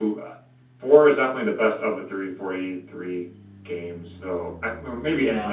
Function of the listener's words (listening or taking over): taking over